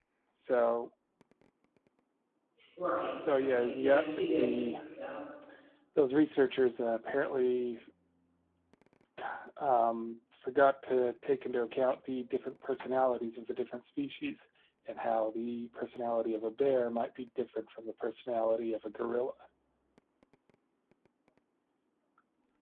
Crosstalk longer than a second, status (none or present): present